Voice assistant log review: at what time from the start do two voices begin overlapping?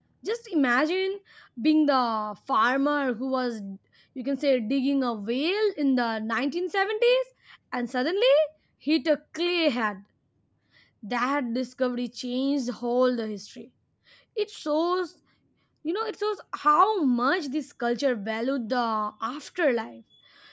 none

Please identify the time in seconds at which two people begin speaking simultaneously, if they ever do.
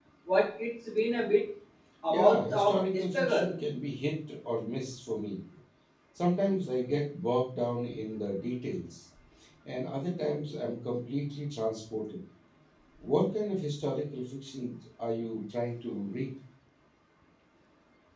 2.1 s

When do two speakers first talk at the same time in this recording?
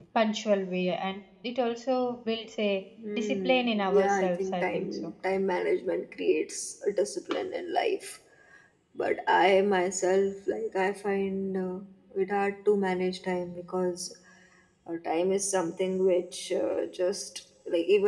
3.0 s

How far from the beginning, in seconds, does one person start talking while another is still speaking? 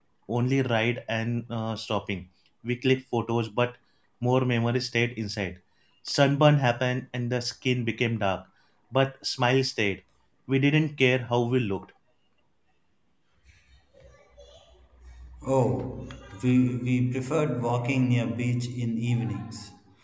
none

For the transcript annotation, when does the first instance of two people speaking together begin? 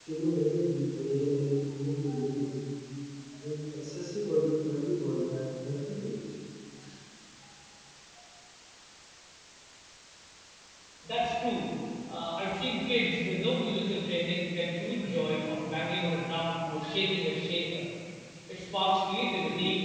none

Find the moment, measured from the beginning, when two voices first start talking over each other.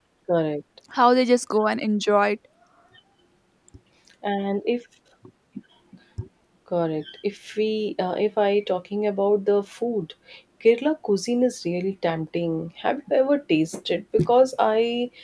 none

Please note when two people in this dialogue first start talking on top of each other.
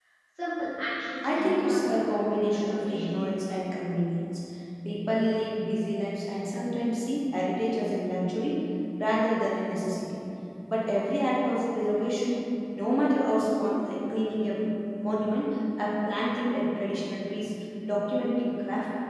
1.2 s

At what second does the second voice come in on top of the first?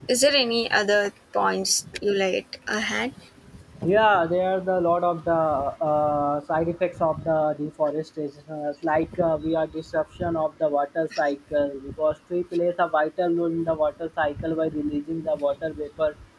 none

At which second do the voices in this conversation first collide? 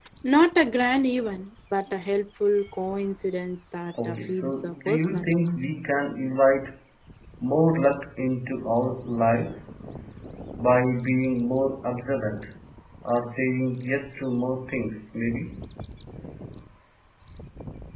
4.0 s

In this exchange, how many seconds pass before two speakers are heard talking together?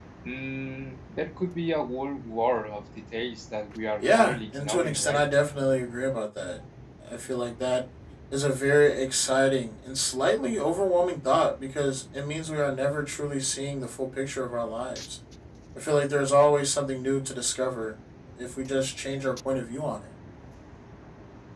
4.0 s

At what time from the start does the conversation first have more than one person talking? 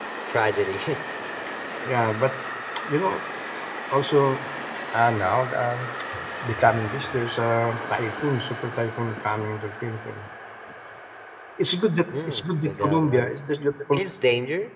12.1 s

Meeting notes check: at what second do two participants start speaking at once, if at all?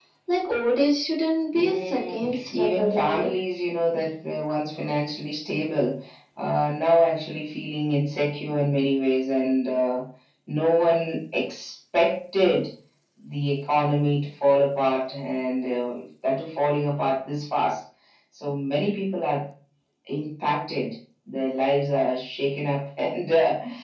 1.5 s

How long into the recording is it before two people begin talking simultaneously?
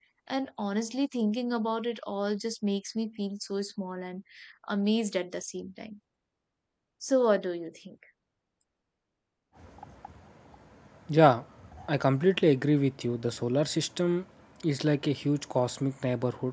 none

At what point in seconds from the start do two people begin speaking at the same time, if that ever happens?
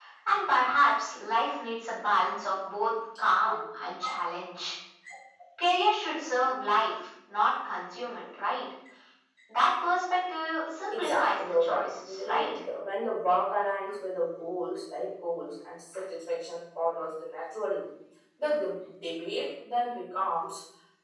10.9 s

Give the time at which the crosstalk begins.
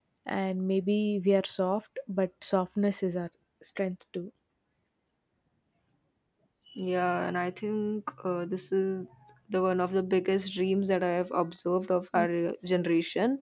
none

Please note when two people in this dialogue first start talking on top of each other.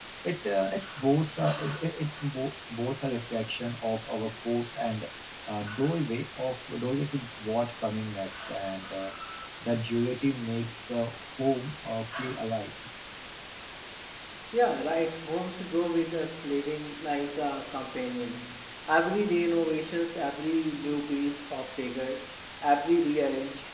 none

